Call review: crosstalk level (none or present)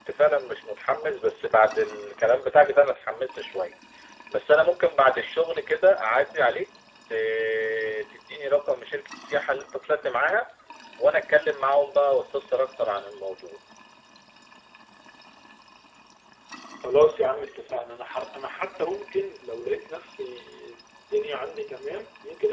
none